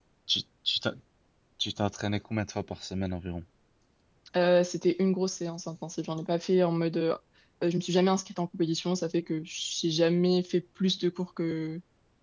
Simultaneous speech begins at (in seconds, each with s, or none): none